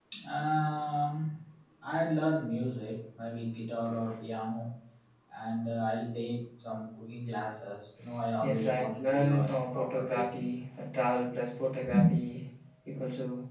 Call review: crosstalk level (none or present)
present